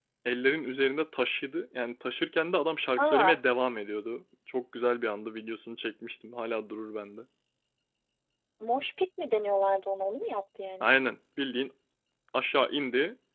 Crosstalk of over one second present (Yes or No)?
No